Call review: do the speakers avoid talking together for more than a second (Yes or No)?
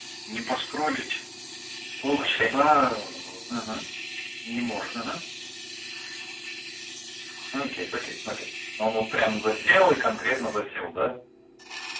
Yes